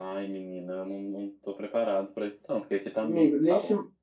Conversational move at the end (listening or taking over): taking over